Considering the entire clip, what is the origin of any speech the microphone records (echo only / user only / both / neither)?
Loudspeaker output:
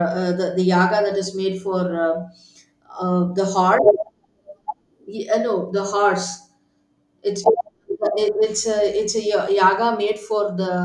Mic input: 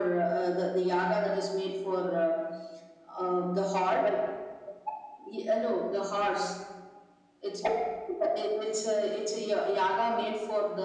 echo only